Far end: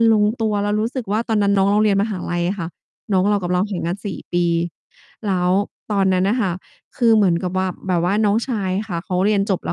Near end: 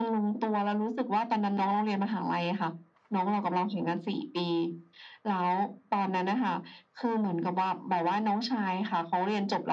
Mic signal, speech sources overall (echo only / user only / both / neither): echo only